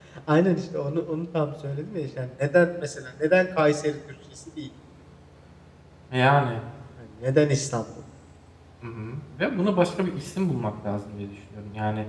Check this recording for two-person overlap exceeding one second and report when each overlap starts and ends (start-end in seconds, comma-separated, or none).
none